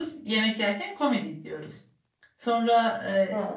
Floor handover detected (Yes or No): No